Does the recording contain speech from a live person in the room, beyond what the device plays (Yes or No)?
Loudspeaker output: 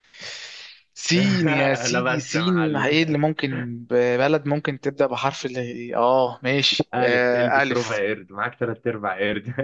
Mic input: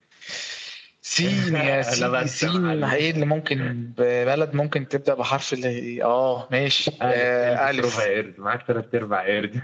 No